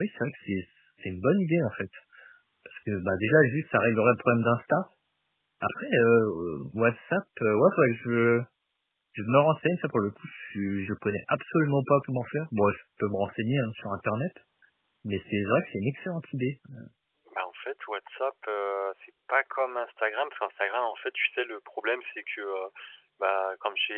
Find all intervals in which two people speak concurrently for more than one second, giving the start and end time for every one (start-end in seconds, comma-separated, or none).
none